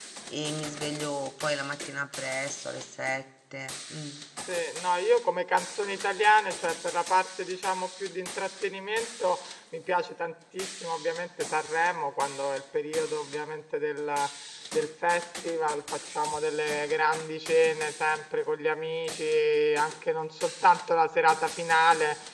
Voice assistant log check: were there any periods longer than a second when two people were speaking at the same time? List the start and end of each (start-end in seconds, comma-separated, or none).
none